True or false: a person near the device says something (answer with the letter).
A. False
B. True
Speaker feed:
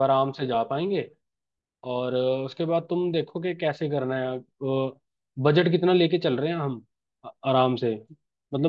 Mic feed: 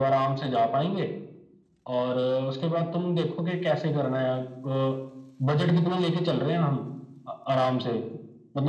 A